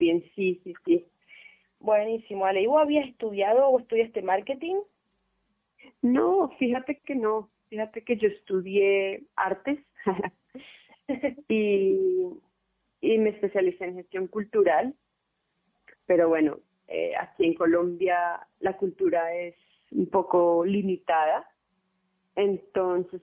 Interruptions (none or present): none